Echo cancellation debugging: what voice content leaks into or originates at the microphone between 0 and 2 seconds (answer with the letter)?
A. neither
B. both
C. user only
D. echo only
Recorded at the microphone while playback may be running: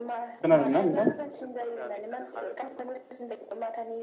B